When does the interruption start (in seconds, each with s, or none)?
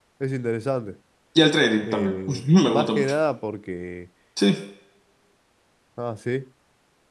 1.8 s